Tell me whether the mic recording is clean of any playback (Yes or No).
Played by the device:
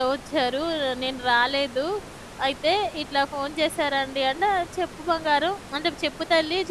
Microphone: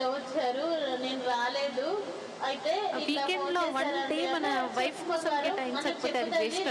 No